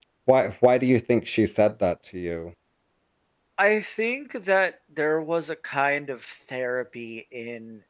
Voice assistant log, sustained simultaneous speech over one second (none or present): none